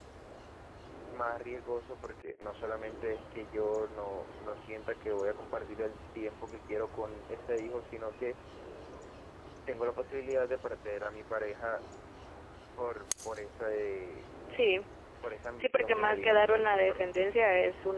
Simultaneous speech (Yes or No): Yes